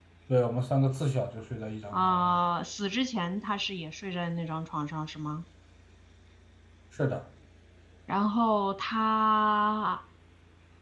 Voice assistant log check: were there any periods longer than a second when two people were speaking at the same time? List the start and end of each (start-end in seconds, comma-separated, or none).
none